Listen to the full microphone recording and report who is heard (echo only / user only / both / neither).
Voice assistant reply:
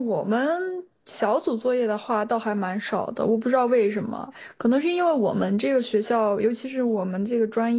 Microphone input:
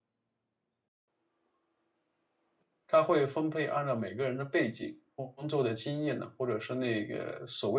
user only